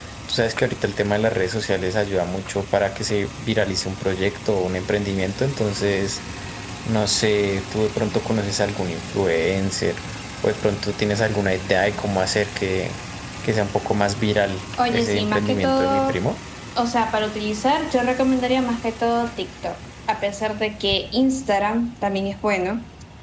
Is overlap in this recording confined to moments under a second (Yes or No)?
No